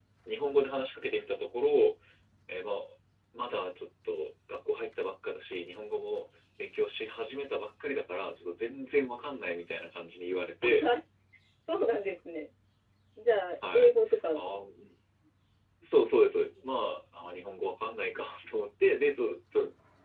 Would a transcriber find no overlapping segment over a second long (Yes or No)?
Yes